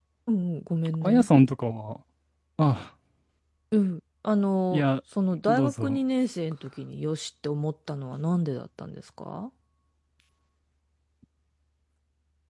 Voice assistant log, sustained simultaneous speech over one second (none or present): none